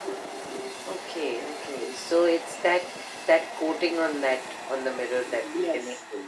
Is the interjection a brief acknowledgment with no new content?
No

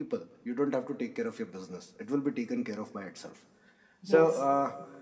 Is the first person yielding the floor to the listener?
No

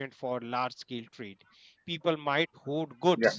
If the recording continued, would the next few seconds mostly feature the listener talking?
No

